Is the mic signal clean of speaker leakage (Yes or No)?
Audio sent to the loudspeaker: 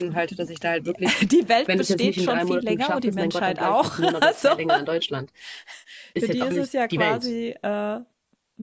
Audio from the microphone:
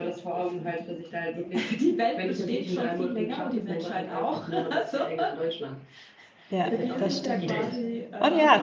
No